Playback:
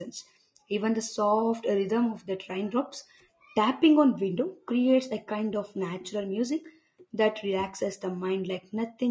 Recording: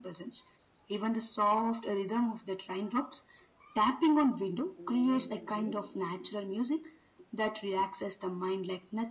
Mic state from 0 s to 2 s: echo only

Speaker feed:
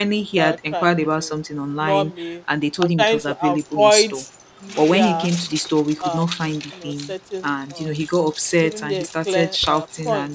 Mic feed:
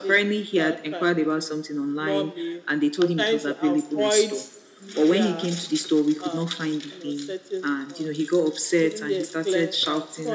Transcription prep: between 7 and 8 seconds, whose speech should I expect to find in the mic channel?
echo only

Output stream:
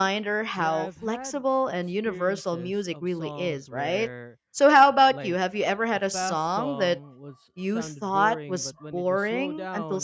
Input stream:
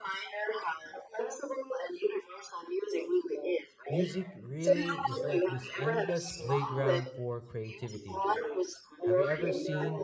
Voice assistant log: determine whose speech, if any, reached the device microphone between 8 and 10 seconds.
both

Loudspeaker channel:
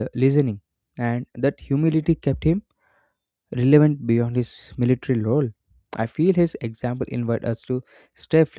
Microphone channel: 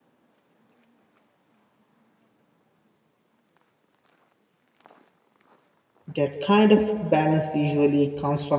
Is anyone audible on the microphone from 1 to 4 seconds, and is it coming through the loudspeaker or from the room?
neither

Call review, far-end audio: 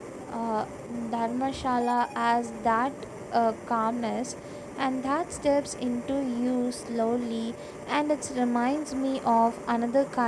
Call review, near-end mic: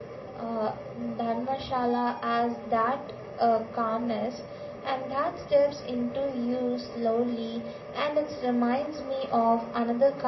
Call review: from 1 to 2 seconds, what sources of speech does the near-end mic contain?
echo only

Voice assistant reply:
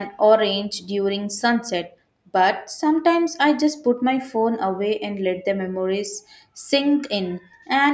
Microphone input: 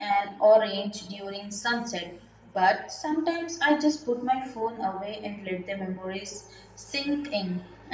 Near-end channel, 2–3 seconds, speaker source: echo only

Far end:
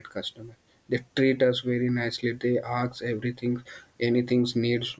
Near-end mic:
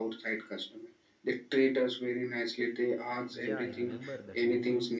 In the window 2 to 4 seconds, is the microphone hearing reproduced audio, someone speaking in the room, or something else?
both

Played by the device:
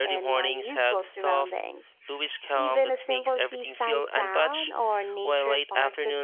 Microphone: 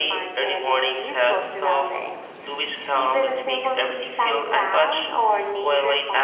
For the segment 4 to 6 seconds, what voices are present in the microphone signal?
echo only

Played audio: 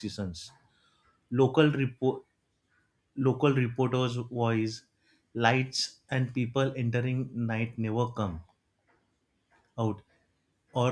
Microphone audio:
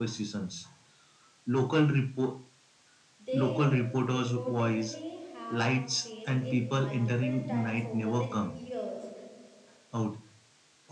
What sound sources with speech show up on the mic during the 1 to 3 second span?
echo only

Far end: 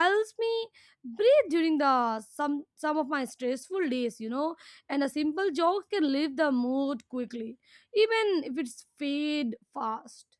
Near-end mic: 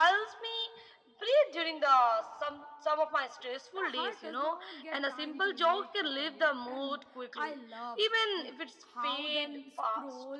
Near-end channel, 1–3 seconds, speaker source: echo only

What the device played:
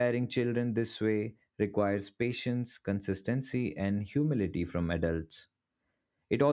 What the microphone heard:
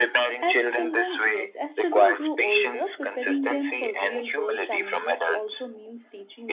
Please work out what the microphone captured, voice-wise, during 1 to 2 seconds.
both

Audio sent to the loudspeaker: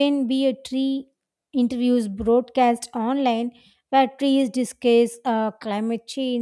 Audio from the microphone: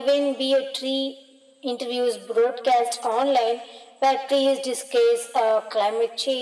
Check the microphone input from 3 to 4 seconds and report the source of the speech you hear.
echo only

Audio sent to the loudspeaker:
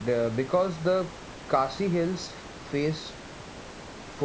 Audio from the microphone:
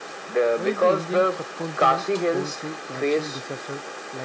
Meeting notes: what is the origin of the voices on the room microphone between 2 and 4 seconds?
both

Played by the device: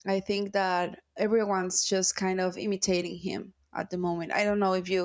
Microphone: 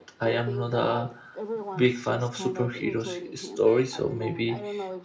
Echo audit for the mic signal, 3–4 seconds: both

